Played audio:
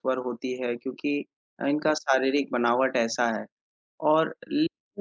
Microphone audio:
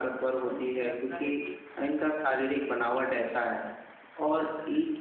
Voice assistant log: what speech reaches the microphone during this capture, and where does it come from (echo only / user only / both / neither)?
both